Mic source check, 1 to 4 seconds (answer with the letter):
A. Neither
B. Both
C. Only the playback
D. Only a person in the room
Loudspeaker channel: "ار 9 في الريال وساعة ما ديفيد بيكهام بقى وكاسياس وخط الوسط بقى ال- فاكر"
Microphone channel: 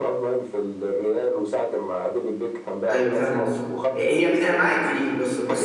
B